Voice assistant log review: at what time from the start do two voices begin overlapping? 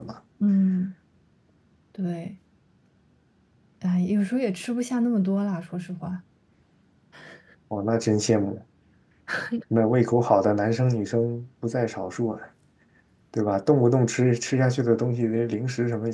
none

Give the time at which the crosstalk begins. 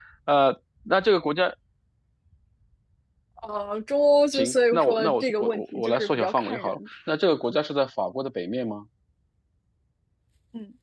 4.3 s

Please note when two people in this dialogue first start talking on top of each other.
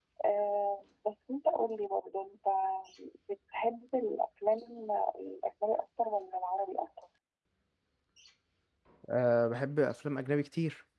none

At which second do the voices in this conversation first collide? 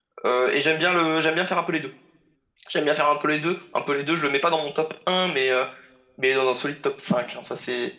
none

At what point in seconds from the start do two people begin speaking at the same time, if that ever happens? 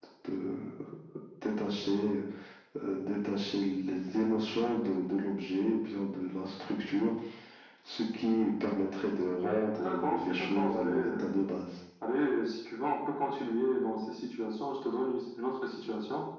9.8 s

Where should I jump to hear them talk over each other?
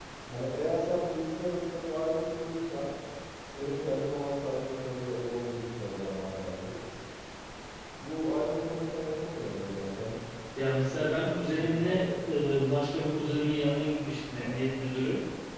10.9 s

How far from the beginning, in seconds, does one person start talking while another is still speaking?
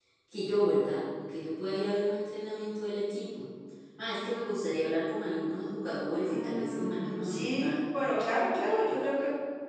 6.3 s

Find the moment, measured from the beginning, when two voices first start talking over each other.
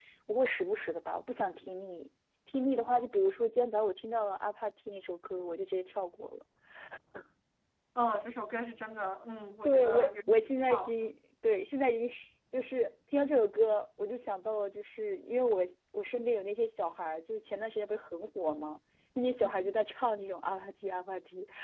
9.6 s

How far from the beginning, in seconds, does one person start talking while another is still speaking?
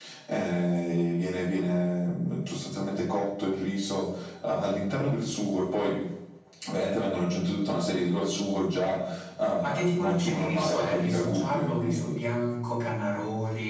9.6 s

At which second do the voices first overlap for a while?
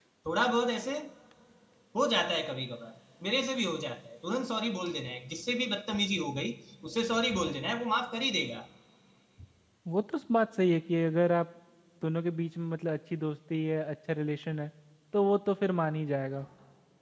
none

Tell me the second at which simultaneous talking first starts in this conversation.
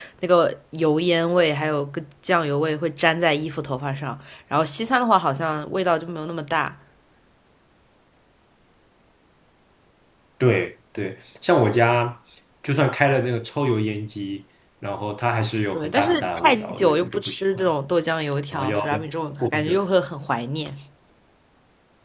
15.7 s

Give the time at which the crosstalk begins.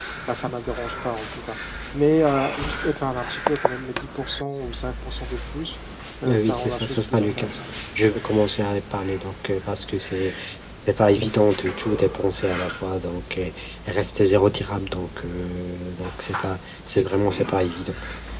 6.3 s

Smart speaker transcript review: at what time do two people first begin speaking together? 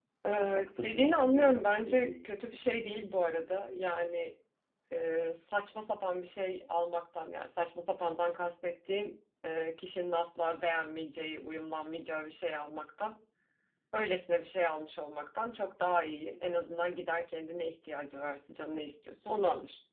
0.5 s

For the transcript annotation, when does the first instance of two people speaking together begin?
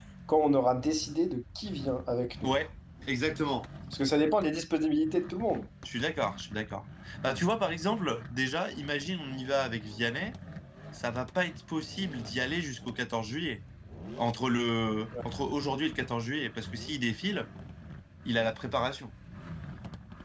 none

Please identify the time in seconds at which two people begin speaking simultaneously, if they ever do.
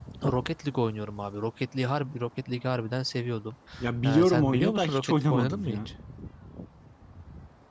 4.0 s

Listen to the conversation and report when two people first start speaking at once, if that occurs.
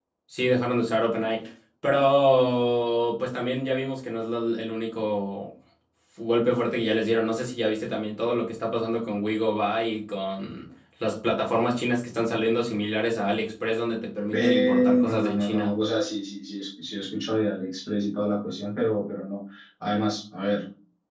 14.3 s

